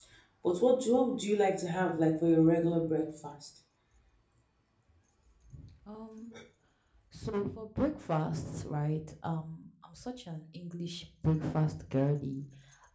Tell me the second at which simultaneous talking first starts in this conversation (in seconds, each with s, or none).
none